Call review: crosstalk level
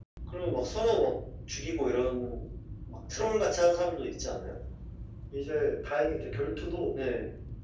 none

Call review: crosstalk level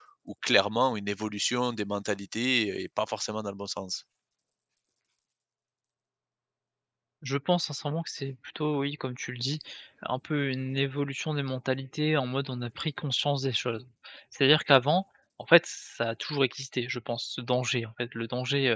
none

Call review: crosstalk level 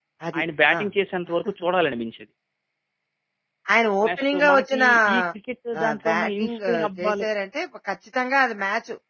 present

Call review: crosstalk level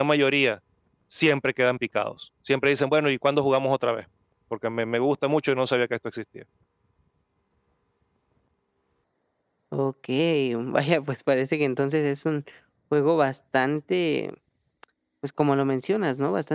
none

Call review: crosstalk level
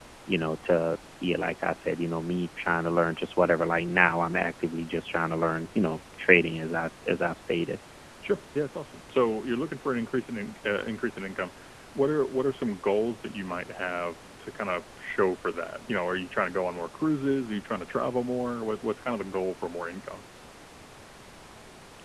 none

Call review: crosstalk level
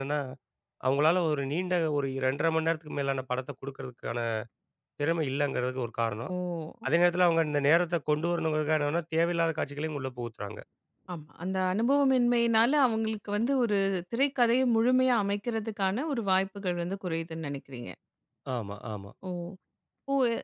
none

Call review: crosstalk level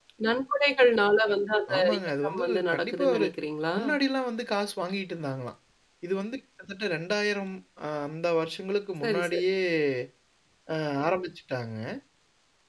present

